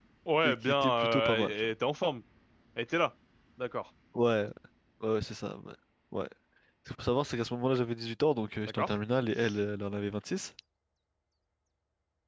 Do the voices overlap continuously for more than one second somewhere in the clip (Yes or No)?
Yes